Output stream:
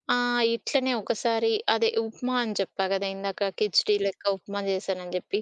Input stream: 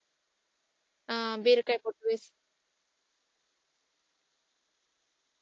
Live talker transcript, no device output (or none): ఆహ్, బీరకాయ పొట్టు వేసి